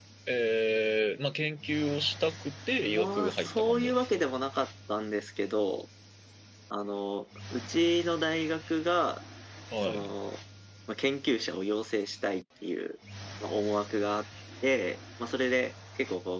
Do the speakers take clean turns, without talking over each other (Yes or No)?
No